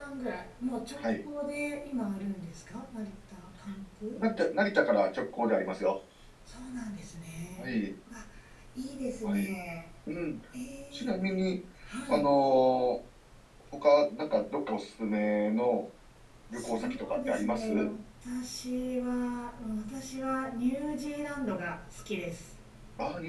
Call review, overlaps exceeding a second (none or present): present